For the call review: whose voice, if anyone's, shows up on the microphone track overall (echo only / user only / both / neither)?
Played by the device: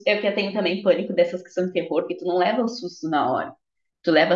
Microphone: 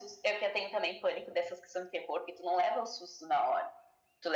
echo only